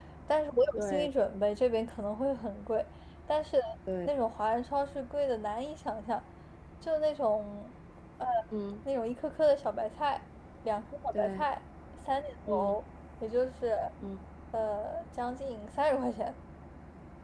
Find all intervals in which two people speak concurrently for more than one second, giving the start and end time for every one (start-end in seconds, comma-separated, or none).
none